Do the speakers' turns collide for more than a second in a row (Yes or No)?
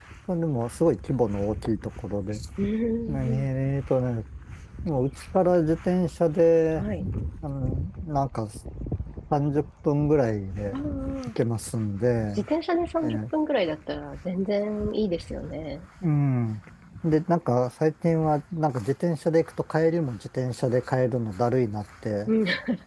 No